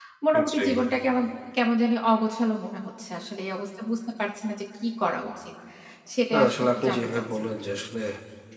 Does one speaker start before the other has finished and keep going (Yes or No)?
Yes